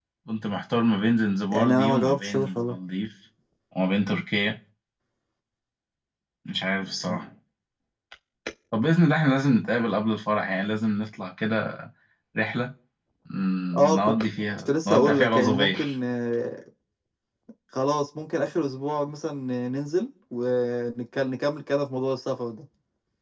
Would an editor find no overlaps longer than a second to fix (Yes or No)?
No